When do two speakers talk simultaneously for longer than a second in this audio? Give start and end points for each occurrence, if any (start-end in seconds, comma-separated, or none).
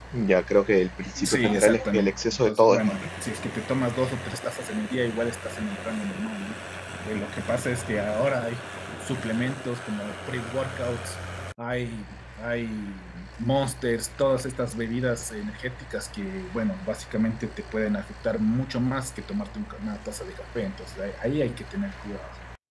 1.2-3.0